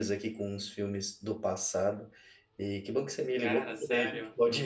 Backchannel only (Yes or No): Yes